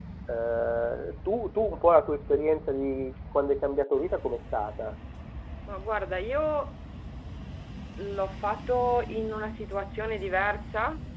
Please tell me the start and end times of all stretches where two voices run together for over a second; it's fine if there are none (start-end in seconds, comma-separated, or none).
none